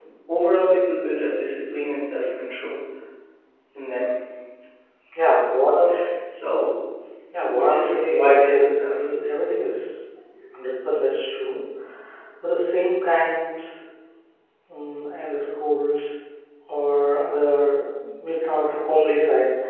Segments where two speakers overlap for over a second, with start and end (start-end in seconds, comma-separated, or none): 7.4-8.9